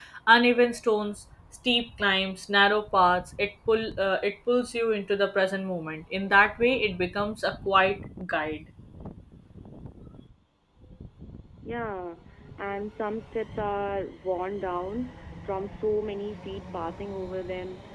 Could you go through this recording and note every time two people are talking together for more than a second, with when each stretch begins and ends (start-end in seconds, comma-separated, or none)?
none